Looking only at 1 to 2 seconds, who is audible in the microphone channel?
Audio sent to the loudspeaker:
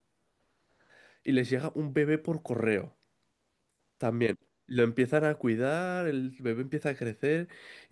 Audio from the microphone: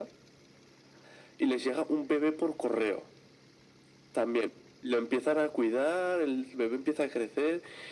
echo only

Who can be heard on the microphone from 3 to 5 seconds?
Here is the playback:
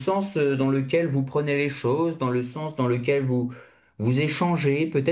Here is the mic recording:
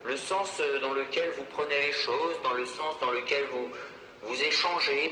echo only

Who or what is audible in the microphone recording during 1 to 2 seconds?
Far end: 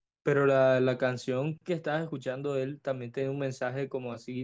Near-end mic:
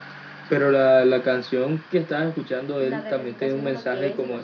echo only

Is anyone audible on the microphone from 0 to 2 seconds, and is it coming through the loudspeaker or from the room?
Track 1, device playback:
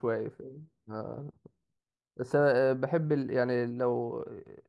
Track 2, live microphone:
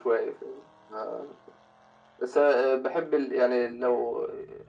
echo only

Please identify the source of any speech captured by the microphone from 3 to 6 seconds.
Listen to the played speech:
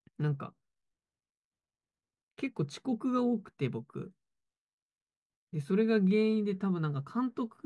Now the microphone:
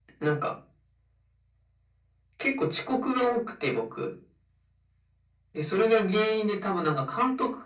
echo only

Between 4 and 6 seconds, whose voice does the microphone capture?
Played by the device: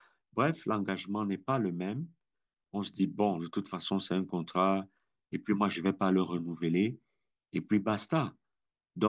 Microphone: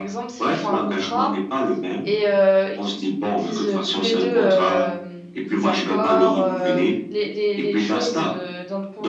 both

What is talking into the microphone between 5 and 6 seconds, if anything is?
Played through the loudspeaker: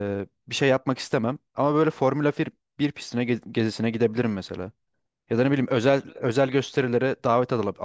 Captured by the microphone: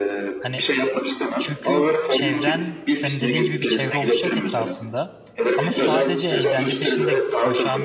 both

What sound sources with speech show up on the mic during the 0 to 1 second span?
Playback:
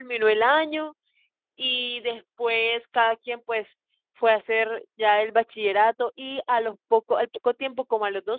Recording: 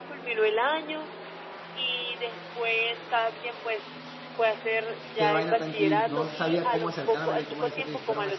echo only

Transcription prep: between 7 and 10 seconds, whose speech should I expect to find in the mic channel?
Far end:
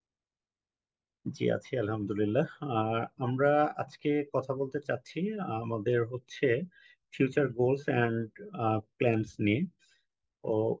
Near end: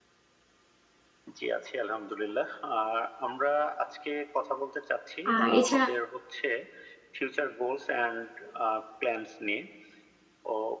echo only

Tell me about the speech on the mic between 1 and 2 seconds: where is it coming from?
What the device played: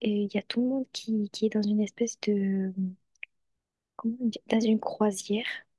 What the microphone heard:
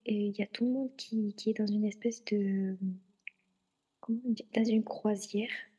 echo only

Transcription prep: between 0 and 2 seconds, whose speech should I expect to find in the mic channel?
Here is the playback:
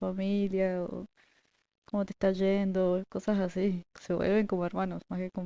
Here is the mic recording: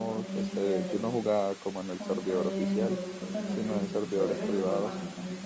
both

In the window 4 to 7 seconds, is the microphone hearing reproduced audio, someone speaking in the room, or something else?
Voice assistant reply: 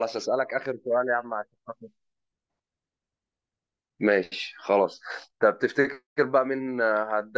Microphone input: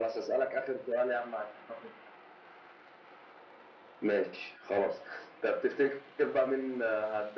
echo only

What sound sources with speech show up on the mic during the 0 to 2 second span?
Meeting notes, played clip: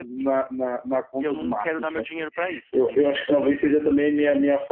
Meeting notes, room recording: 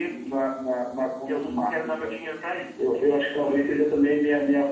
echo only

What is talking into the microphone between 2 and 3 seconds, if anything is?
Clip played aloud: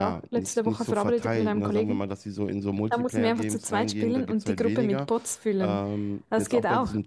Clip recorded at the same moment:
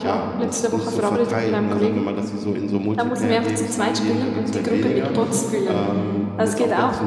echo only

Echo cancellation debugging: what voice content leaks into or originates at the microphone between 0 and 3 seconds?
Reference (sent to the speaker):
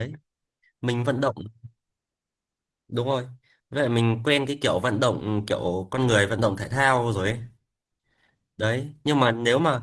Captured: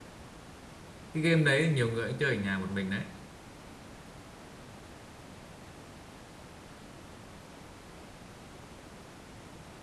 user only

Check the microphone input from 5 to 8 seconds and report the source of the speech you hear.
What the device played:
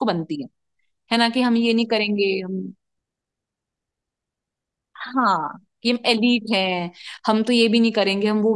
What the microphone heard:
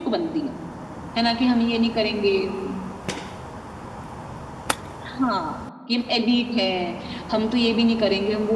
echo only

